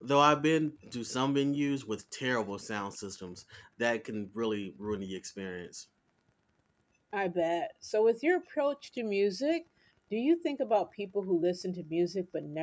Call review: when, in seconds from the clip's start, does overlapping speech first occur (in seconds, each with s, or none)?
none